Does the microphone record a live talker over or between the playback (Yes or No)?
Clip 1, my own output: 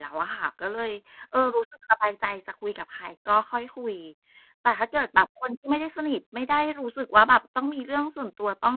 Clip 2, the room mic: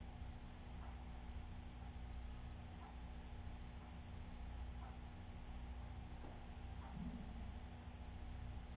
No